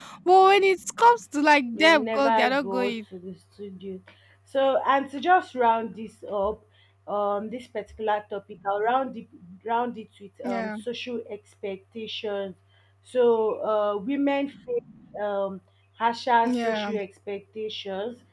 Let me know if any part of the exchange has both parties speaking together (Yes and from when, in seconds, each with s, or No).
Yes, from 1.7 s